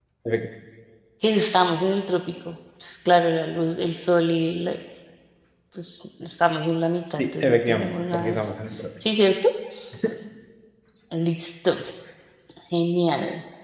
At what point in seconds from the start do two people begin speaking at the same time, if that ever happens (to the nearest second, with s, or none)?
7 s